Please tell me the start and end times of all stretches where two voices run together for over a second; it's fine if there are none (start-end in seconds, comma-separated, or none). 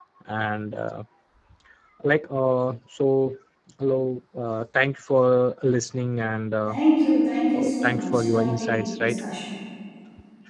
7.5-9.2